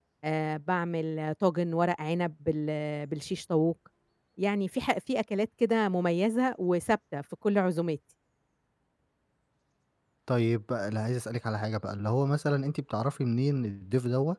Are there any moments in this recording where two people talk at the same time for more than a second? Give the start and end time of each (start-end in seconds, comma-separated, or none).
none